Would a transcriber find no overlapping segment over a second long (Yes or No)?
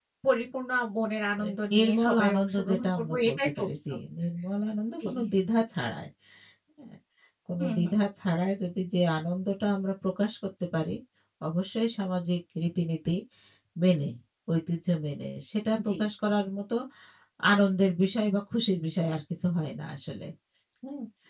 No